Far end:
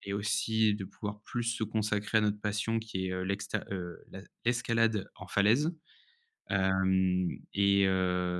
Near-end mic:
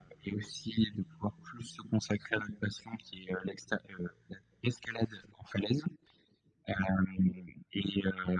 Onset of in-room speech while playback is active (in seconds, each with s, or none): none